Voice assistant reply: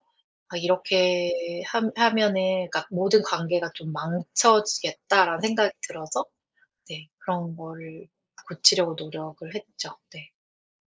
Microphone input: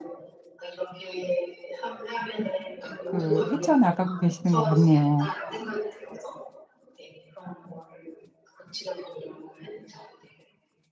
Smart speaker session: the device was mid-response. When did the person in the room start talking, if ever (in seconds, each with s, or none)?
3.0 s